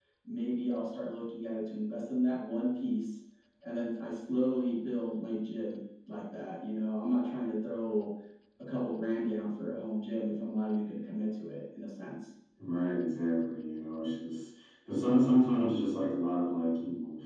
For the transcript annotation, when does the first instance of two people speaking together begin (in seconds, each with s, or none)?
none